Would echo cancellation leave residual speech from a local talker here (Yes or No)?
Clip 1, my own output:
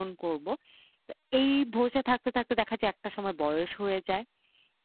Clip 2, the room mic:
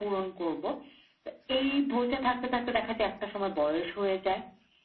No